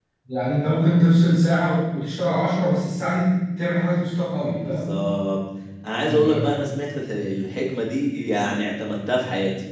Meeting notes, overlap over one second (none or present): none